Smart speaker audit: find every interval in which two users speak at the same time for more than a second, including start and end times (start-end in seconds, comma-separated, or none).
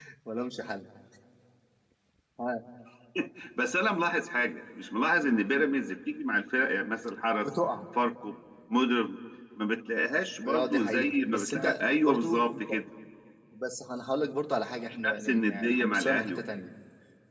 10.4-12.6, 14.9-16.4